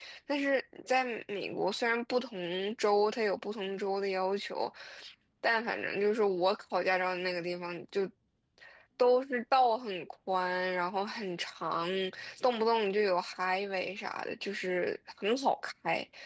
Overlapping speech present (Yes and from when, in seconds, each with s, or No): No